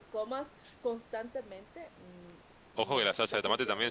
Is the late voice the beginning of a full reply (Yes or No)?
Yes